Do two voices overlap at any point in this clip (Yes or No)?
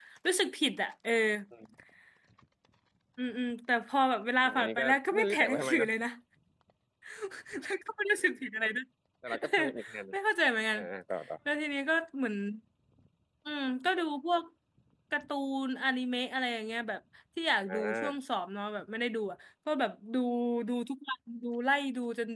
Yes